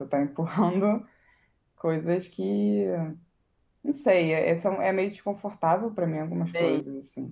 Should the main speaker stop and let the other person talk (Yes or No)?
Yes